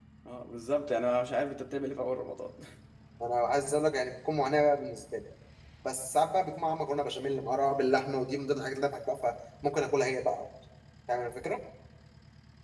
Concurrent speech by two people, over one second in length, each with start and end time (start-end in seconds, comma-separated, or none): none